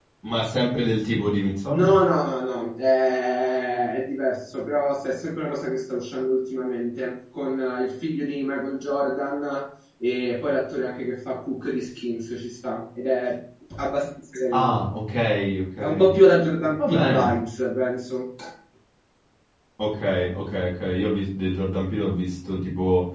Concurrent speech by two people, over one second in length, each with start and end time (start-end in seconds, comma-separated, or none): none